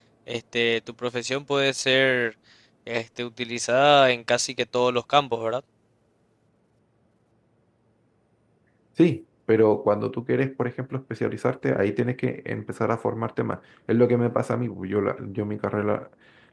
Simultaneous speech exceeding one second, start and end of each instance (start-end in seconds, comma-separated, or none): none